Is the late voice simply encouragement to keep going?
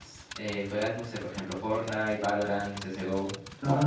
No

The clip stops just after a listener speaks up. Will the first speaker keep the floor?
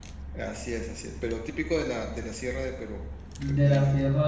No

